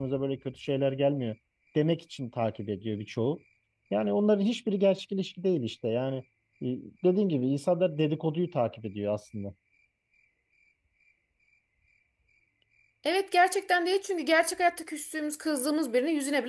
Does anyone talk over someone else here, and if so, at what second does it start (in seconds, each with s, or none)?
none